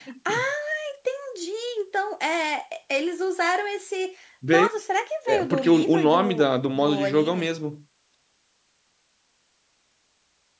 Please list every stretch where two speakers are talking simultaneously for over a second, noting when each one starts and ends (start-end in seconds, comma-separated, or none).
5.3-7.5